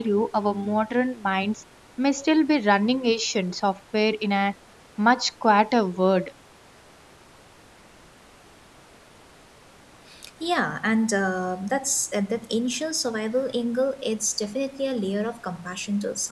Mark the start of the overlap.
none

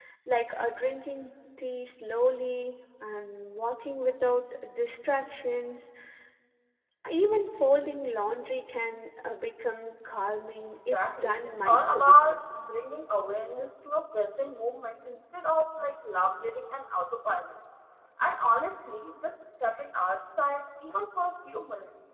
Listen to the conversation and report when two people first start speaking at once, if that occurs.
10.8 s

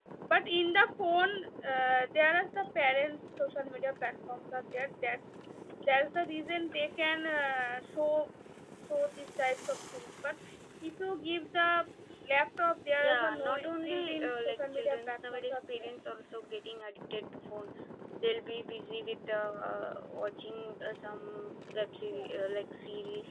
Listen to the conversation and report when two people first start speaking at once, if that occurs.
13.1 s

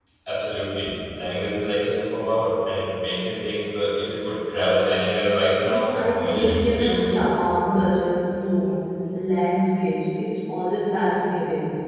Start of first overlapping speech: 5.6 s

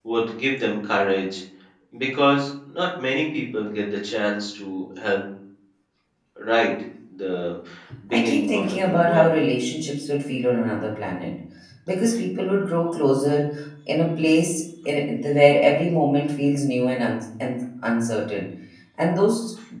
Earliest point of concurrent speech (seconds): 8.1 s

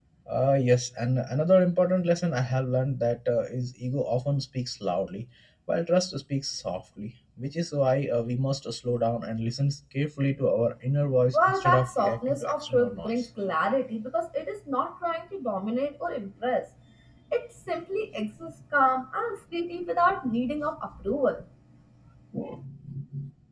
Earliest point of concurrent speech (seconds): 11.3 s

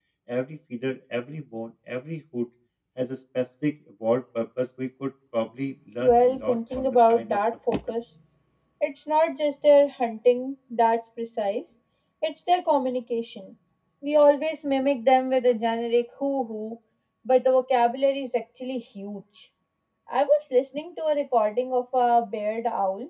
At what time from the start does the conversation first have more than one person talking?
6.0 s

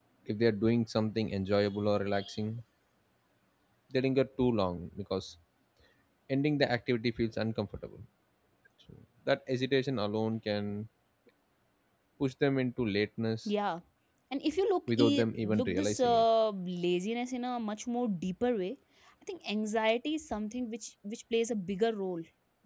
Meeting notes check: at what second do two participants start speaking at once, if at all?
14.9 s

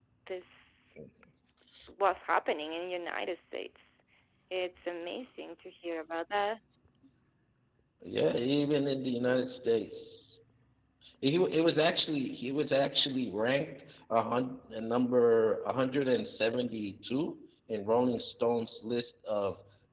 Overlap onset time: none

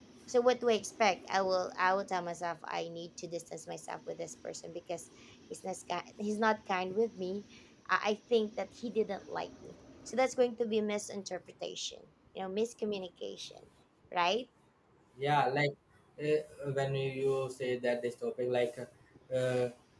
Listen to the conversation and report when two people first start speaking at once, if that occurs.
none

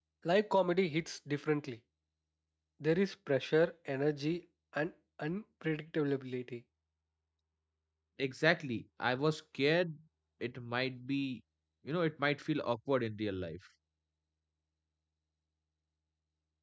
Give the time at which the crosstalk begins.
none

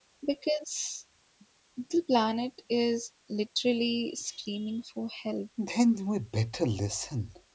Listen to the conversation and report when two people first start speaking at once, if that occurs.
none

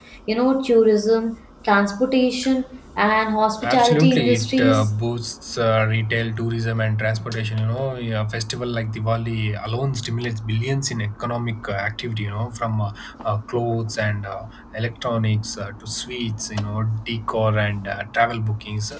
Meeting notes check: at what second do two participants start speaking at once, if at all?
3.6 s

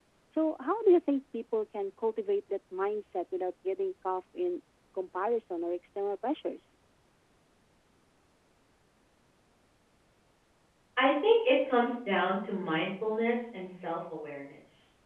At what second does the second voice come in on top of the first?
none

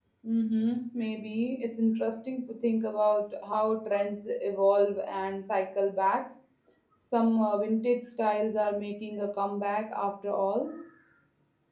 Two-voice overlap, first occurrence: none

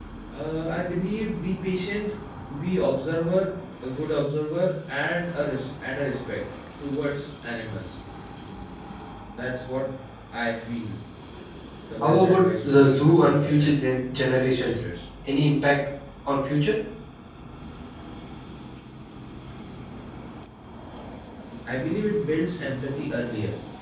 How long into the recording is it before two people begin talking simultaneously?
12.0 s

